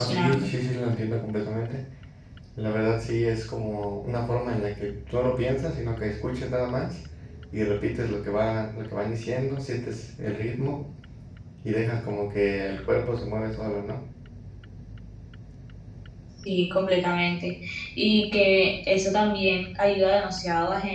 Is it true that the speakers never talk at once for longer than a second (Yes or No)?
Yes